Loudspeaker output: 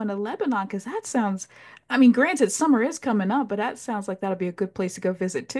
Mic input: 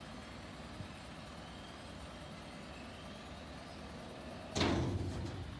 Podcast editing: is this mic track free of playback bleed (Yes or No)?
Yes